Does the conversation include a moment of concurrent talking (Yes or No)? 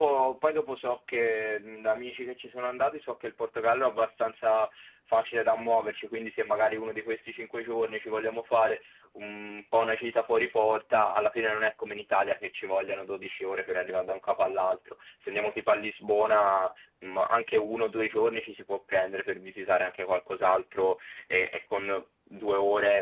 No